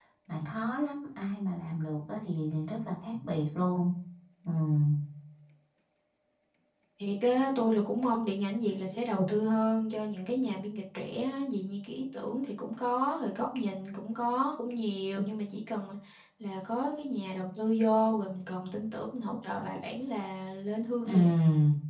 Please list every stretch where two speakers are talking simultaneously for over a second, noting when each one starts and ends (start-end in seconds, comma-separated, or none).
none